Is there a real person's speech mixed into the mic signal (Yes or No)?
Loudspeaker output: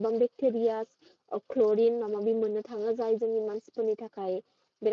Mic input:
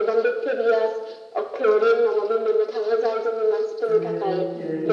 Yes